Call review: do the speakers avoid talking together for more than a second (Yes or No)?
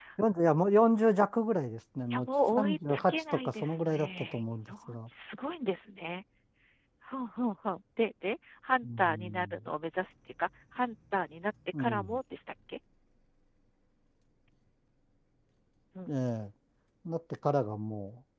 No